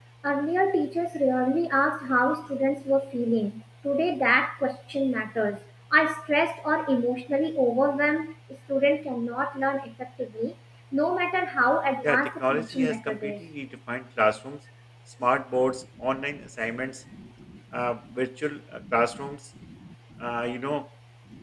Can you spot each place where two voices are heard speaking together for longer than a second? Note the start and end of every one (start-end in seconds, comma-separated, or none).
12.0-13.3